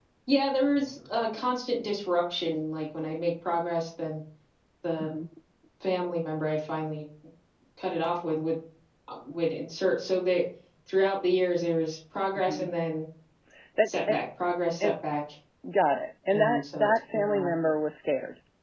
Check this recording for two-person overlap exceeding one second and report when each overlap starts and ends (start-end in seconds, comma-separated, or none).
16.3-17.5